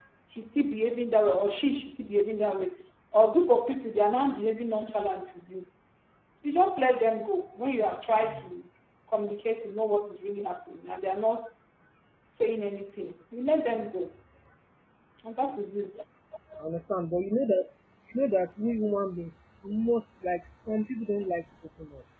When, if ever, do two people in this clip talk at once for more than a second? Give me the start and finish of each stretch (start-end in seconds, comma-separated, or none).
none